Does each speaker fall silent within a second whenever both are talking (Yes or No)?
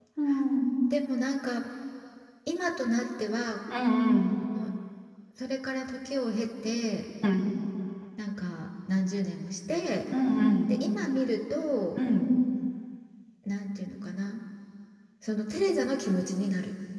Yes